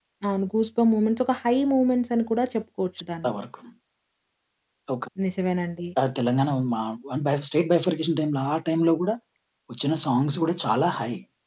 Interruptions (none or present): none